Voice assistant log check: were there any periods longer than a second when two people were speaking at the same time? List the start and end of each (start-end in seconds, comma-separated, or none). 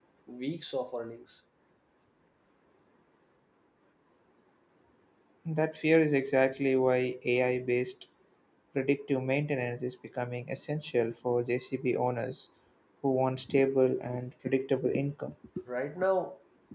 none